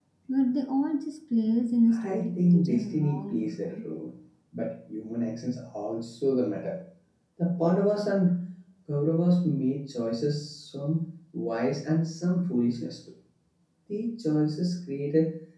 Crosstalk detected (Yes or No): Yes